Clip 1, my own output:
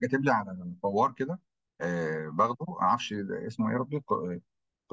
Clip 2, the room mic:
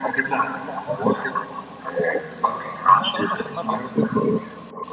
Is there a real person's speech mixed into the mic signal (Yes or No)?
Yes